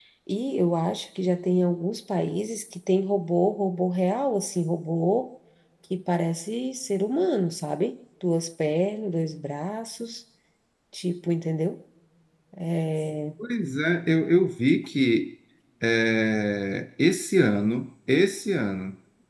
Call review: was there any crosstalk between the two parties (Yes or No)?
No